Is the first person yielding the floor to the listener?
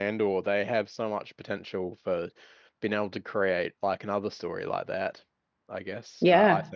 Yes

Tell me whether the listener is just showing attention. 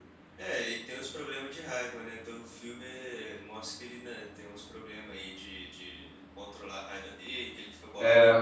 Yes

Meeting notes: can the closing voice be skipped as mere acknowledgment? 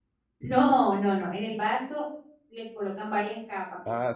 No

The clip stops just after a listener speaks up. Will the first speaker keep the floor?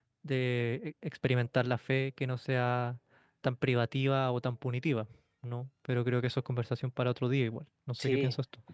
No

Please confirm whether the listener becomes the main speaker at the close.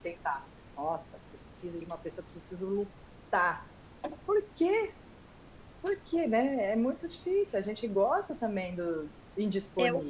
Yes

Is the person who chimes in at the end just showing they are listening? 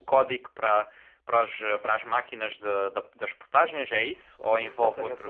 No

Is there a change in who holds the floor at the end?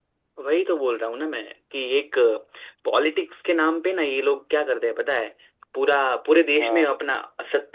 No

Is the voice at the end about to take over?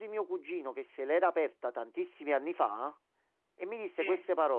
No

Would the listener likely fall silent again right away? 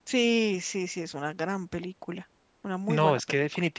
No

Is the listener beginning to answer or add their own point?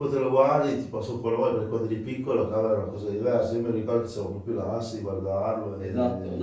Yes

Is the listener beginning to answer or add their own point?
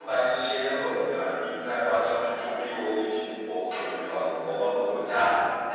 Yes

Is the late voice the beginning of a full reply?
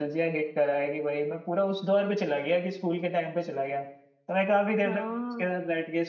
No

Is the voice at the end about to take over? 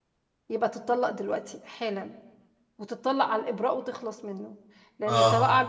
No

